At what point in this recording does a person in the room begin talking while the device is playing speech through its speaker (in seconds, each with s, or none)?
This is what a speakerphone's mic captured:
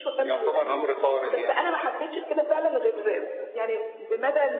none